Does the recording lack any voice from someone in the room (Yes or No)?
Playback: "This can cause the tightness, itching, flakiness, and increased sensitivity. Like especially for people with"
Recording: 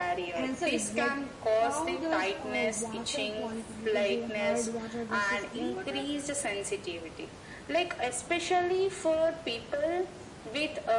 No